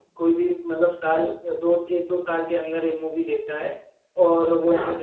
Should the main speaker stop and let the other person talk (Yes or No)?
No